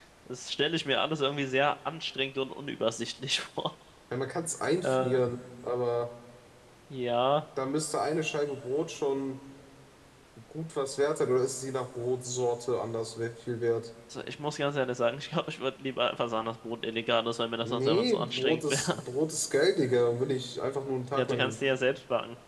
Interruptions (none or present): present